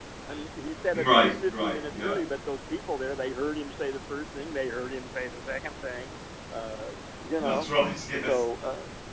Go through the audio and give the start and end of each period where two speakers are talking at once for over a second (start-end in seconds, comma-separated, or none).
0.9-2.2